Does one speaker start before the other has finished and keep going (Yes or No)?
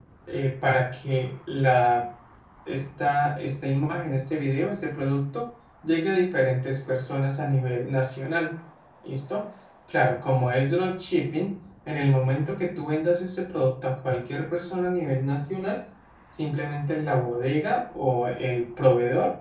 No